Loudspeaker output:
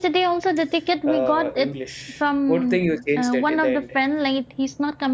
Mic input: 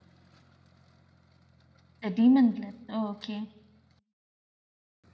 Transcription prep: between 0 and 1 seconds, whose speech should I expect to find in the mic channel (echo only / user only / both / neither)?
neither